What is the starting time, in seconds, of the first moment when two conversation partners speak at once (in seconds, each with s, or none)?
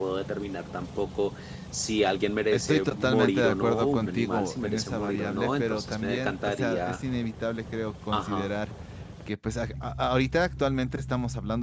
2.5 s